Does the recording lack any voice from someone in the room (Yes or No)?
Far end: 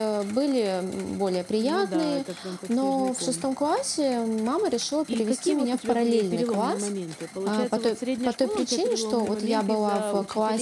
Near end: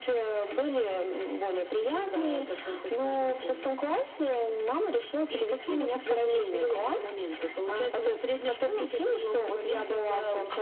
Yes